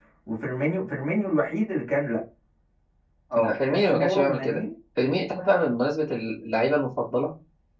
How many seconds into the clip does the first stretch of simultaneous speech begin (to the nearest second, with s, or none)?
3 s